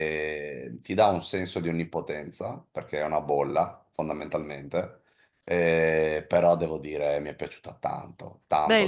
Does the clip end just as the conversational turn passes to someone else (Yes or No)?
Yes